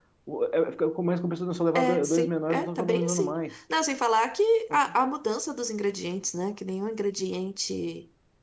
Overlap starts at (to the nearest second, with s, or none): 2 s